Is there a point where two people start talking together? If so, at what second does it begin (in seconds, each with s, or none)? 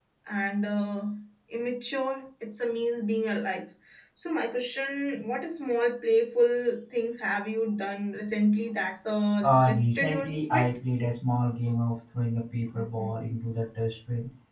9.4 s